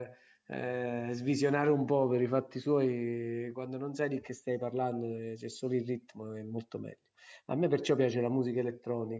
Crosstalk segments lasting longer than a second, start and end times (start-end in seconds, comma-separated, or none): none